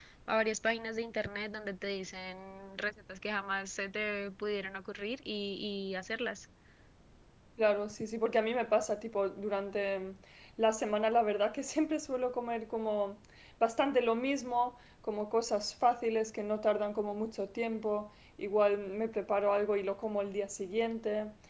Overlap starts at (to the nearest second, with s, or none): none